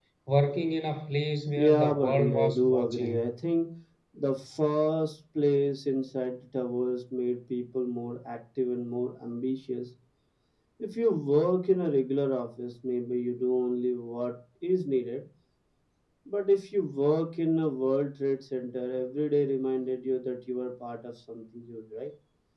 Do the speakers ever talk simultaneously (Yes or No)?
Yes